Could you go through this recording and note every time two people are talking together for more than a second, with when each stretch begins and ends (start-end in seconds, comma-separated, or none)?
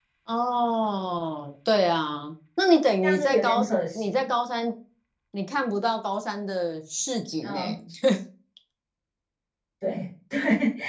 3.0-4.3